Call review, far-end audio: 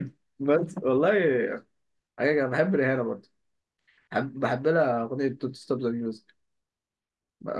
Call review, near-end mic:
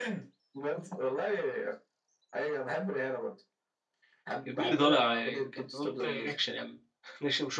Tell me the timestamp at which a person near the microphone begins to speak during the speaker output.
4.4 s

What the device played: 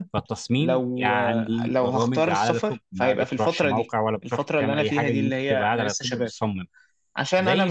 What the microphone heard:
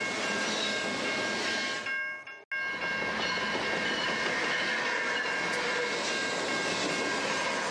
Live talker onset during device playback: none

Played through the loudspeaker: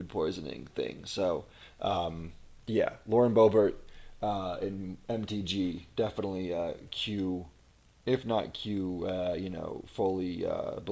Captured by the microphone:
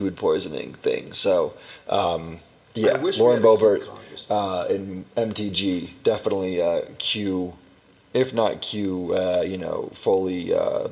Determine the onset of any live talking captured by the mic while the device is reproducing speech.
2.8 s

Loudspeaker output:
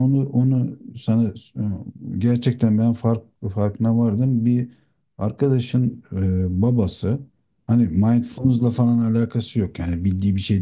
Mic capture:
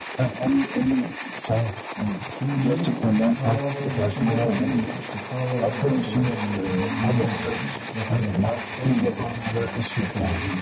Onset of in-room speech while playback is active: 2.3 s

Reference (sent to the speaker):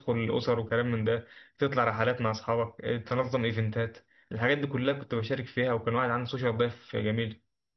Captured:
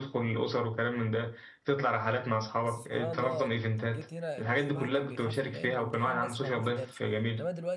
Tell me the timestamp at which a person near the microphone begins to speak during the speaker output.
2.6 s

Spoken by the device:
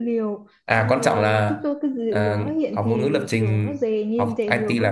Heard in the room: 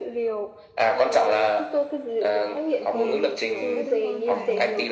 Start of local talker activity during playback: 2.9 s

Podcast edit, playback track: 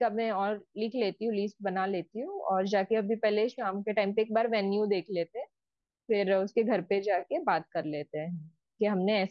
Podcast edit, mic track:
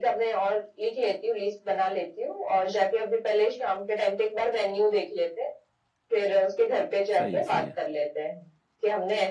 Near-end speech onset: 7.2 s

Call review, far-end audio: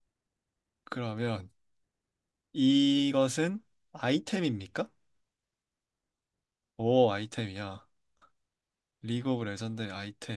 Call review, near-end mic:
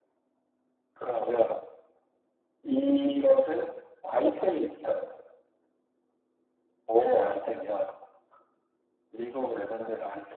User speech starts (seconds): none

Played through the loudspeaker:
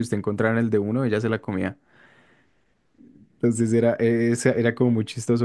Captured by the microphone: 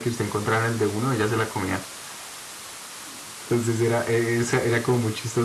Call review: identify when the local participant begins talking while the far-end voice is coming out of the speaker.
none

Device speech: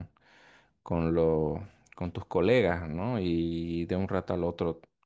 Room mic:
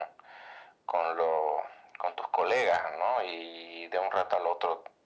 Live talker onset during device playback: none

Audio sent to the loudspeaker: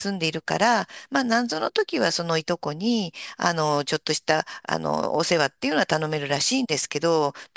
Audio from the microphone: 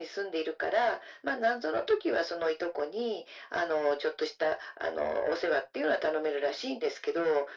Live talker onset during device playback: none

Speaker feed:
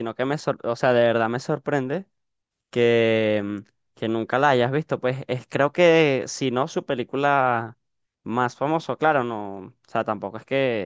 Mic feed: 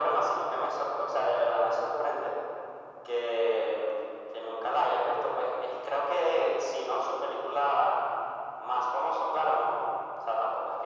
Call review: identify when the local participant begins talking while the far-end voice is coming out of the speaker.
none

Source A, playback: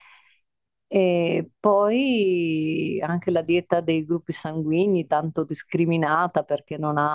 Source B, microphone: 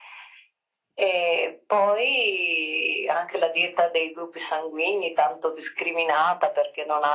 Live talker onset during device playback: none

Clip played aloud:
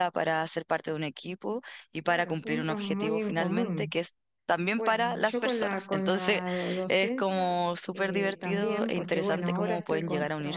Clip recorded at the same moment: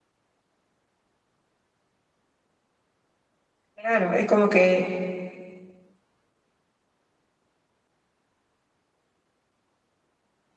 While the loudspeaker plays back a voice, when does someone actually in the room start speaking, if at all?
3.7 s

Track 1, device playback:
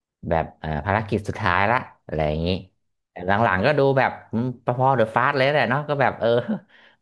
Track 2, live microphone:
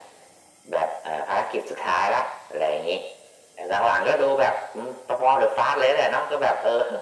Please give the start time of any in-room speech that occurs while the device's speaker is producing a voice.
none

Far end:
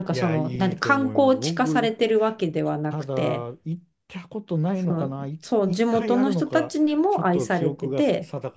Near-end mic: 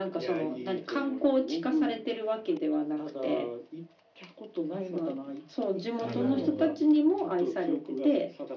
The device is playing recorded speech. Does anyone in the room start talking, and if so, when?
6.0 s

